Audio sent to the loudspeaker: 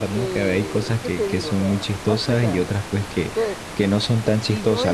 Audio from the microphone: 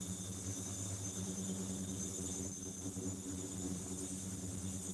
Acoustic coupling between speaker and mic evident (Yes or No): No